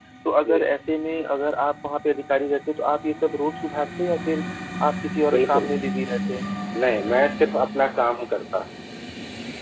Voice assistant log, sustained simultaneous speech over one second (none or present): none